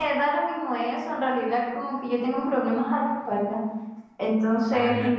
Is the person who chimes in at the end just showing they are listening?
Yes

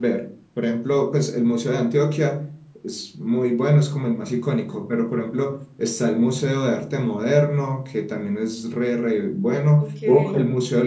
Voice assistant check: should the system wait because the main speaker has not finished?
Yes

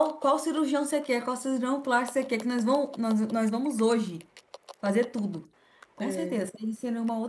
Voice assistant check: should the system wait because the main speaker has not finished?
Yes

